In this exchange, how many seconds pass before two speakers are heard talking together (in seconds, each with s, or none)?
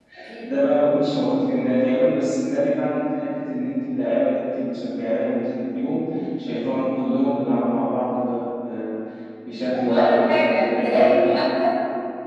9.9 s